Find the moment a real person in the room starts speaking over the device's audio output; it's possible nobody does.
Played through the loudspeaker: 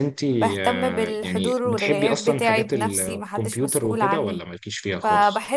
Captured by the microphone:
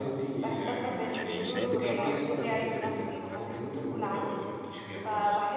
1.1 s

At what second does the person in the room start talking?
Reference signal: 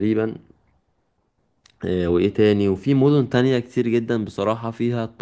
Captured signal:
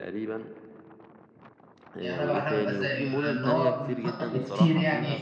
2.0 s

